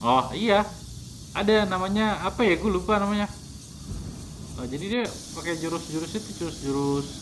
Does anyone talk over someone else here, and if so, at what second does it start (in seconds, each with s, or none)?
none